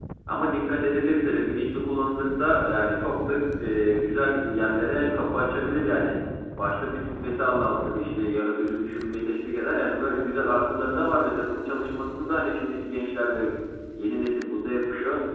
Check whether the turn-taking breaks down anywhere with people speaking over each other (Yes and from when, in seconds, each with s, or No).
No